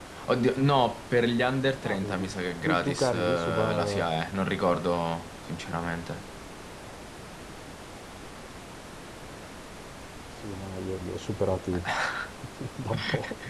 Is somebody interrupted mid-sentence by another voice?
Yes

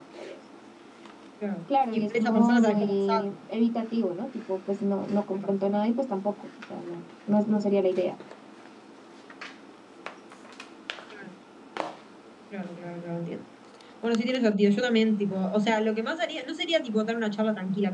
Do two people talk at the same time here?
Yes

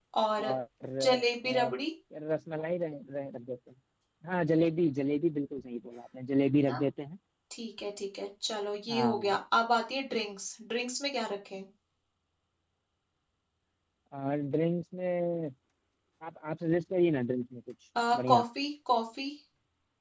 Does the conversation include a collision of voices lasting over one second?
No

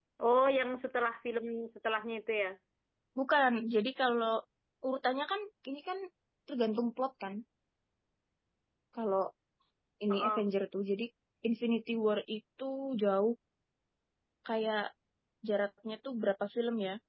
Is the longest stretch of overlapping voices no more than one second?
Yes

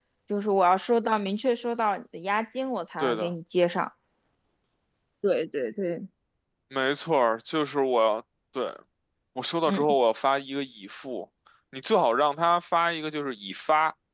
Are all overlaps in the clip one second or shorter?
Yes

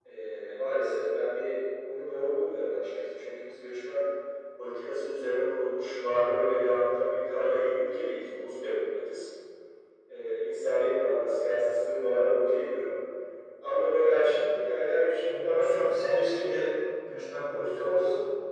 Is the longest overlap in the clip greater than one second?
Yes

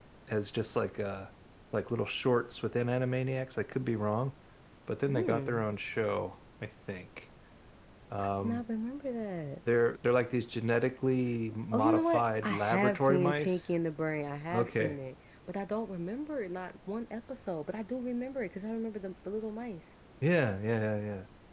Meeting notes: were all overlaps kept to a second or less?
No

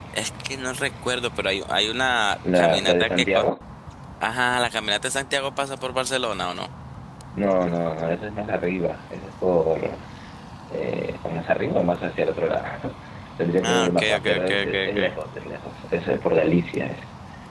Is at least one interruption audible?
Yes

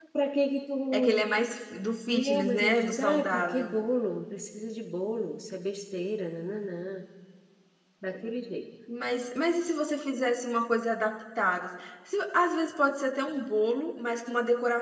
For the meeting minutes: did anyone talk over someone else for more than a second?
Yes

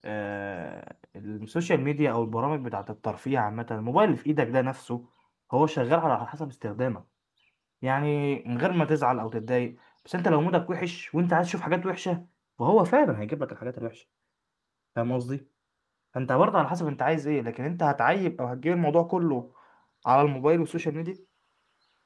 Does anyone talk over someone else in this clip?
No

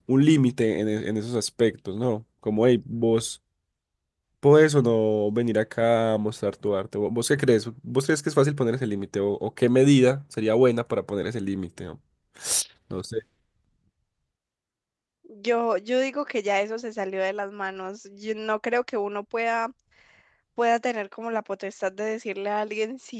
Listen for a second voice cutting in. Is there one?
No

